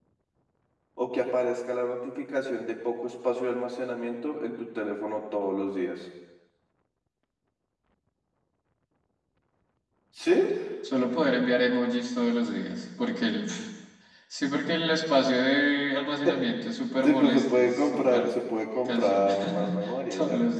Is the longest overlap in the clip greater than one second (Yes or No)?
Yes